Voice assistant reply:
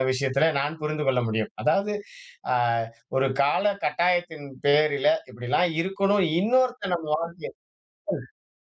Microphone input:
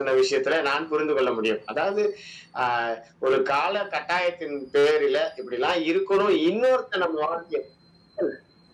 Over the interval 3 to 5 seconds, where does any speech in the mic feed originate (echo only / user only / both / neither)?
echo only